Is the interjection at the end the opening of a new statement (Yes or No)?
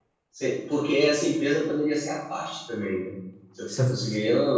No